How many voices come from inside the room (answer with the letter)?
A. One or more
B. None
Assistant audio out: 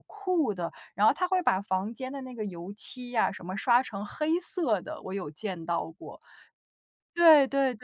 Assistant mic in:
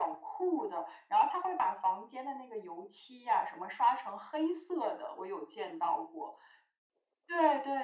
B